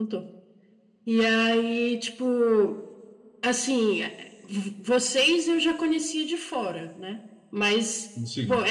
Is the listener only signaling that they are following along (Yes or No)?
Yes